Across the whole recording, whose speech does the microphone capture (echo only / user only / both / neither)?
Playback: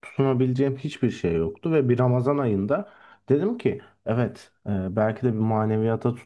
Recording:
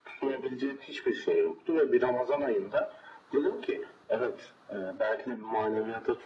echo only